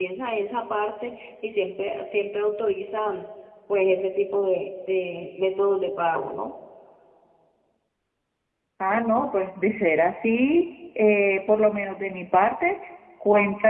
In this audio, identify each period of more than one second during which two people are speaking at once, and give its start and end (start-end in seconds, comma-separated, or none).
none